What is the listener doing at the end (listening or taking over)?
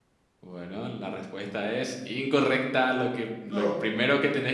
listening